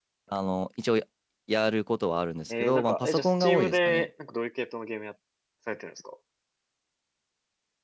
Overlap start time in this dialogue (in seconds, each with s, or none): 2.5 s